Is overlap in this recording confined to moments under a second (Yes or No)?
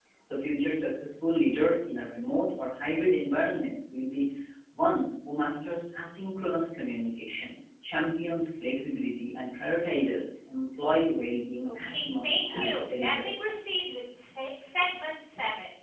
No